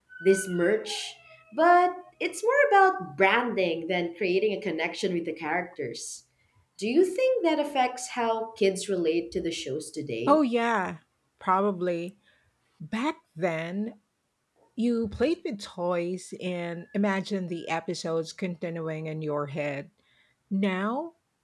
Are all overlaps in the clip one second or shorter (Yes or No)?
Yes